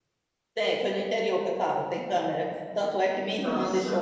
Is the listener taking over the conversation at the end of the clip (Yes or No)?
No